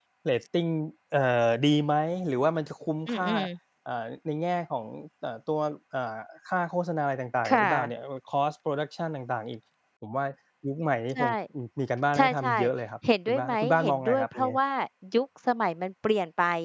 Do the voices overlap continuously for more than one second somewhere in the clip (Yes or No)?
Yes